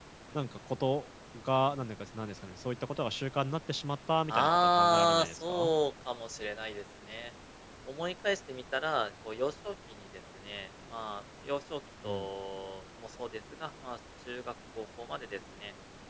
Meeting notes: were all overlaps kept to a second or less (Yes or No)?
No